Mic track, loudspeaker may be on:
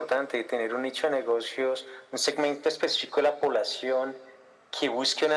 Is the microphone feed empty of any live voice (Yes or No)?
Yes